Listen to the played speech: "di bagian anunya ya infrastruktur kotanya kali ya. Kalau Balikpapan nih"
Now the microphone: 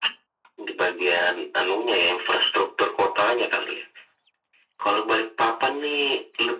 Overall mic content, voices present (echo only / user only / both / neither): echo only